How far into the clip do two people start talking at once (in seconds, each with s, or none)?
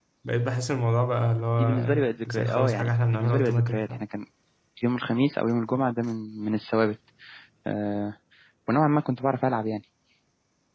1.6 s